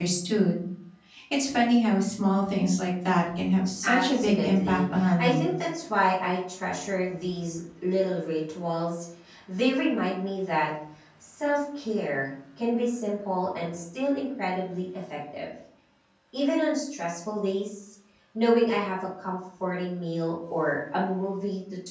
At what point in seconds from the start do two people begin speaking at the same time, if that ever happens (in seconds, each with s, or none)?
3.8 s